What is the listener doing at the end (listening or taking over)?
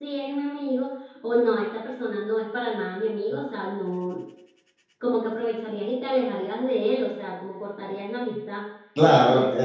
taking over